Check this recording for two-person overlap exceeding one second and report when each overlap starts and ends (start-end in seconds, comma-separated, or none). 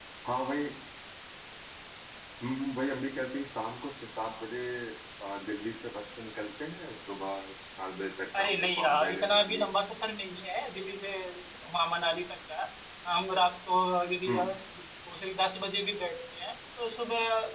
8.4-9.7